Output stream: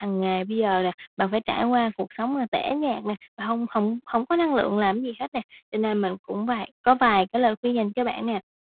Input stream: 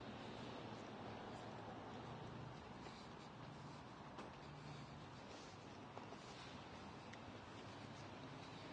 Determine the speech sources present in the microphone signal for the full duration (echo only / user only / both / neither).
neither